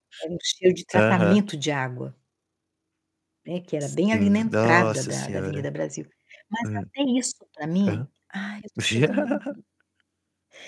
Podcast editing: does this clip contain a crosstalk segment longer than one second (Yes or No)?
Yes